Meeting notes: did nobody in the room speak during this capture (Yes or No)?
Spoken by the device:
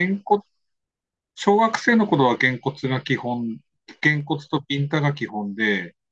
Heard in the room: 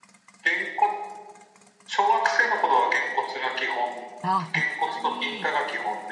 No